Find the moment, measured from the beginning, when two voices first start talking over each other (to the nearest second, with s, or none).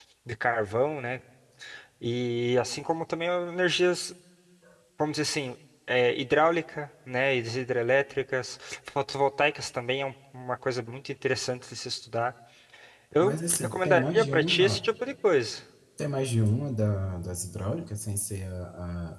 13 s